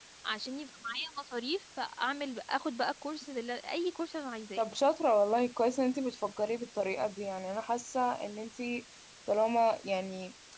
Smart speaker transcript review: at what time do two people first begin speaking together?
none

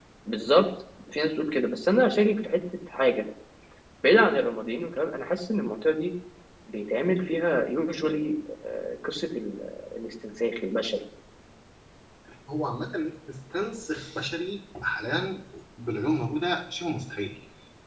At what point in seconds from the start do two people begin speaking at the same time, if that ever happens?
none

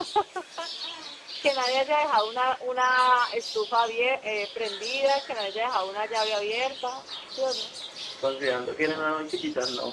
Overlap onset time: none

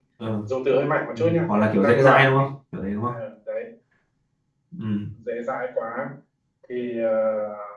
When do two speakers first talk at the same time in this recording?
1.2 s

